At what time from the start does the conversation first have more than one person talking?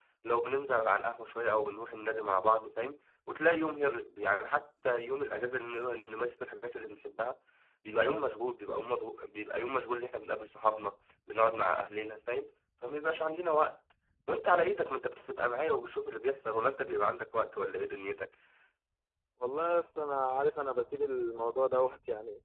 none

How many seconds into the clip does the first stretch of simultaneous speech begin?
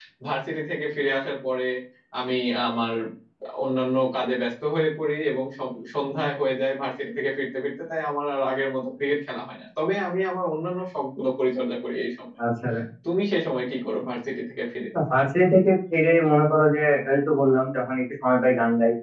none

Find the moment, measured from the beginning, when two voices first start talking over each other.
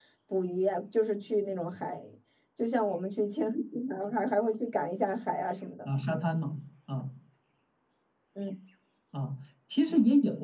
none

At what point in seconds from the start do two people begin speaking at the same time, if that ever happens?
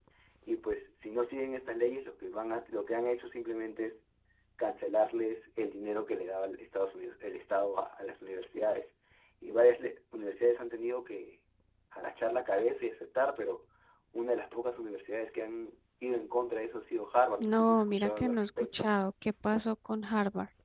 17.4 s

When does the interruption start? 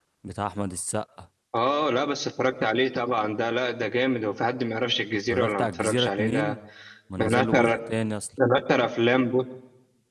5.3 s

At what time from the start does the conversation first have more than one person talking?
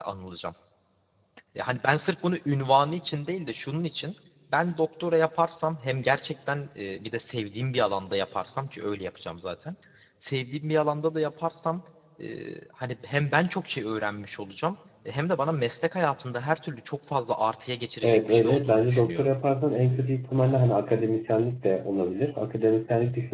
18.0 s

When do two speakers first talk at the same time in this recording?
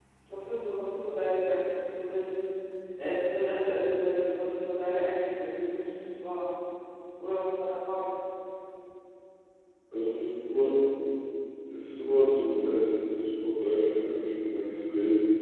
none

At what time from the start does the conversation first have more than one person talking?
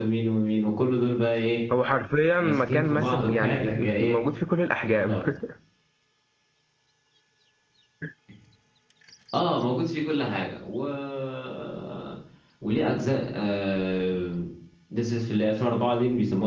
2.4 s

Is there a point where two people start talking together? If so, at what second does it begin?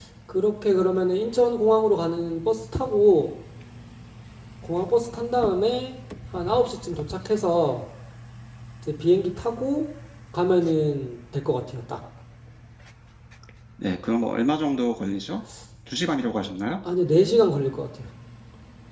none

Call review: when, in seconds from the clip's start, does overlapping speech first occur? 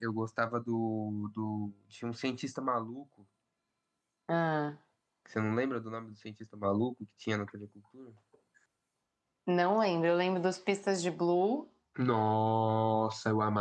none

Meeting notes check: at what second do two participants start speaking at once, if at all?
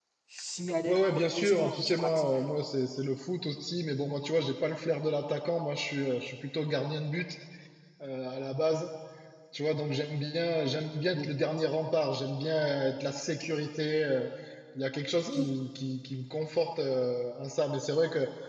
0.9 s

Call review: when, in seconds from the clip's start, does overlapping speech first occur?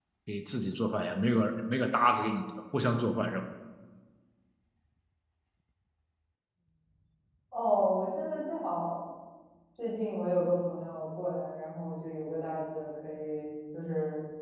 none

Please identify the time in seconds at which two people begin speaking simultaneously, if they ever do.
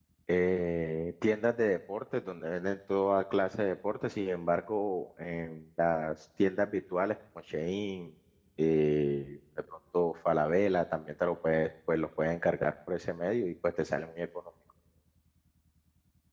none

